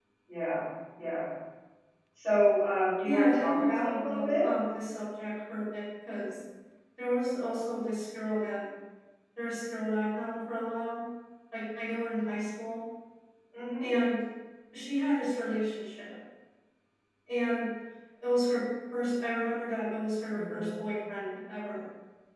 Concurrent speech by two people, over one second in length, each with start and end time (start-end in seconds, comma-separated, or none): 3.0-4.4